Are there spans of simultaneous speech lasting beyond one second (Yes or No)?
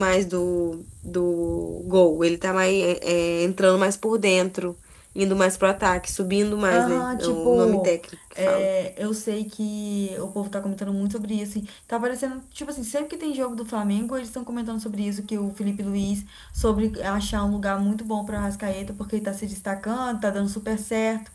Yes